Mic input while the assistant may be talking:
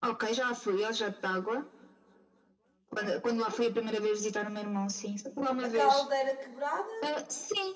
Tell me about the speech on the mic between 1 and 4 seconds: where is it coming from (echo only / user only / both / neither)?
echo only